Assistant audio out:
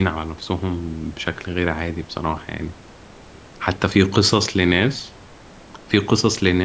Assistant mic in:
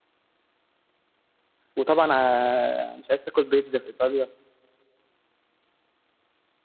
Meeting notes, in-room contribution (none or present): present